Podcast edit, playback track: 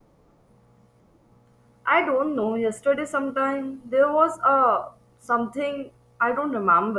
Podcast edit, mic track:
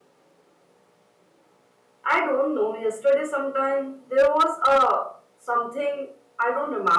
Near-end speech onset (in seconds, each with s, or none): none